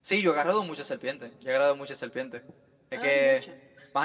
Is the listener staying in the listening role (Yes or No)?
Yes